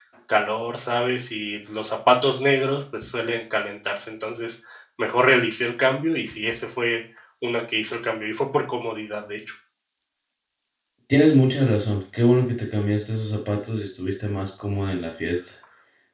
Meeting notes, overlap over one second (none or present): none